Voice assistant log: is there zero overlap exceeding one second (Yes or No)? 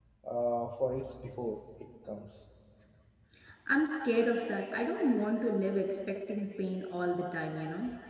Yes